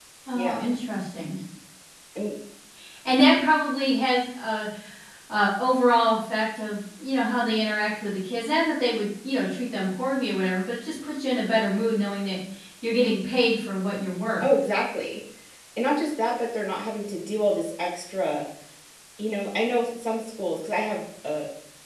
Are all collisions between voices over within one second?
Yes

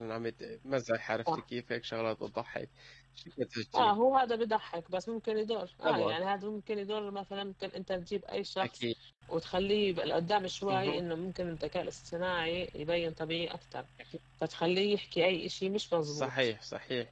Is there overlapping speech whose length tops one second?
No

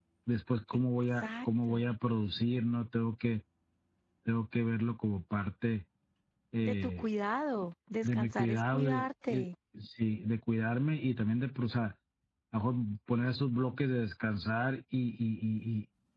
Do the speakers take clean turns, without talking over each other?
No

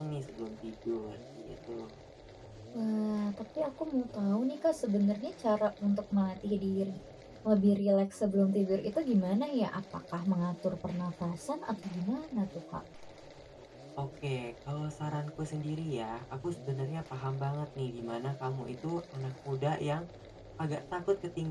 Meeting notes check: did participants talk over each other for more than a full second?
No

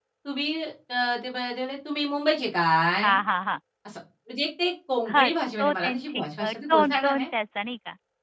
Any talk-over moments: Yes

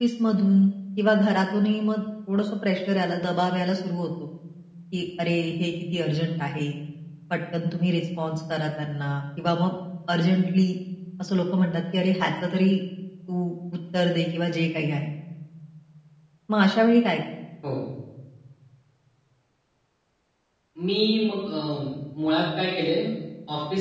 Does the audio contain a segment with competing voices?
No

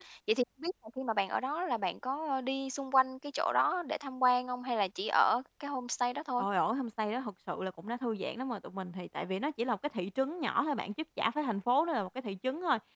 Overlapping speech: No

